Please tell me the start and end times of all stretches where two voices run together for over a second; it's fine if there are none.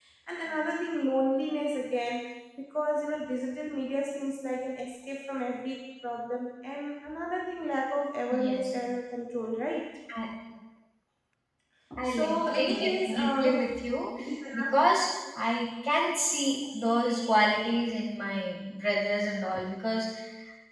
12.0-13.6

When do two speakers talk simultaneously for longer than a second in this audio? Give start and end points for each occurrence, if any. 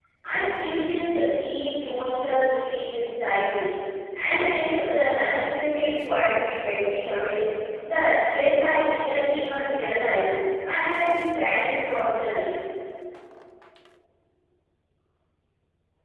none

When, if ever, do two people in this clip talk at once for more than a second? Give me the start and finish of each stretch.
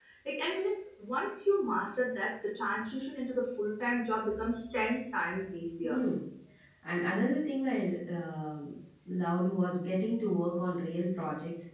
none

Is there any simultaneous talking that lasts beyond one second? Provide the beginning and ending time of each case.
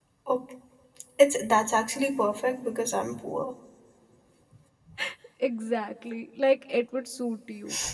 none

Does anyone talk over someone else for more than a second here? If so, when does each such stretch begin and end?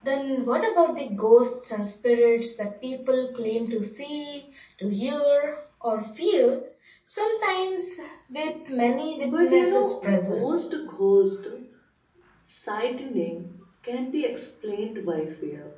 9.3-10.7

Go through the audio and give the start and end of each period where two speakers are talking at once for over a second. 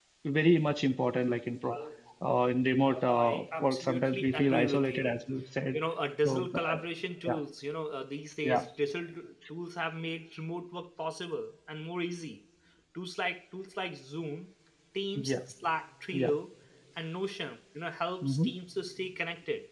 2.8-5.1

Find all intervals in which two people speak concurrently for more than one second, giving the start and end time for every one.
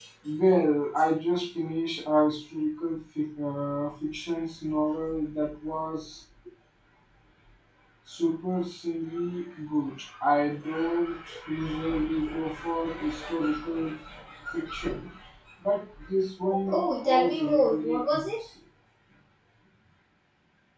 16.7-18.2

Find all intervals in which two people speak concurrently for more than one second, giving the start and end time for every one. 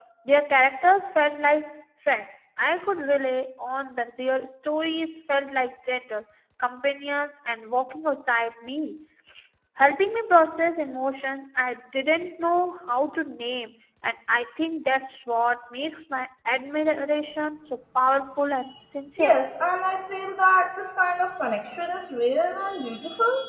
none

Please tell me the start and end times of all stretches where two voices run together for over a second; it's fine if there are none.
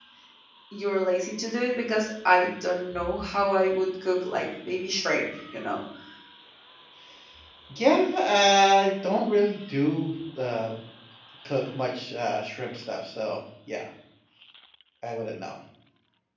none

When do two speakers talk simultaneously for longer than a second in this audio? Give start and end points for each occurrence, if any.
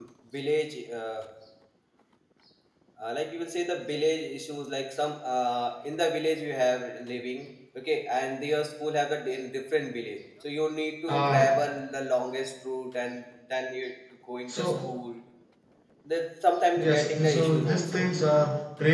16.8-18.1

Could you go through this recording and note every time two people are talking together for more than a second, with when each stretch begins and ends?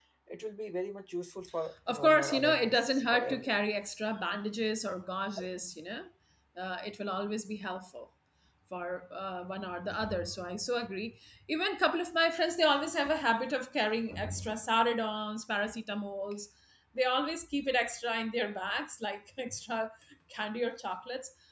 1.9-3.5

